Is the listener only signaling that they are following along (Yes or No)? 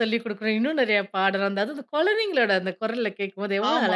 No